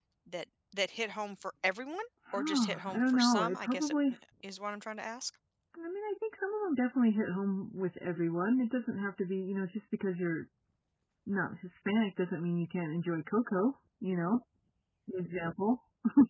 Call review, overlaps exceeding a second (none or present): present